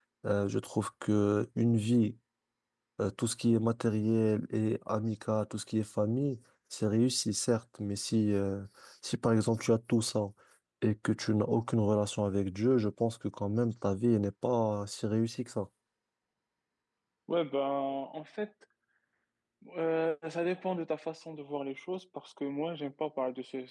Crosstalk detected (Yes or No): No